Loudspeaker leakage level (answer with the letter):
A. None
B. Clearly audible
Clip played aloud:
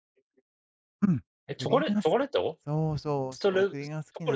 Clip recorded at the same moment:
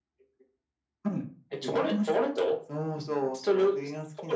B